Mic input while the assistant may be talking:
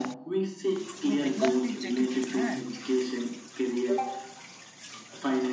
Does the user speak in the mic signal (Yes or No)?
Yes